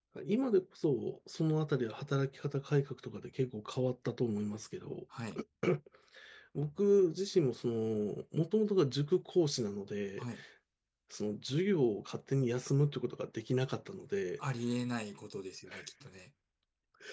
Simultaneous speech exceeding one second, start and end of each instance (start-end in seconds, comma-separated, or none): none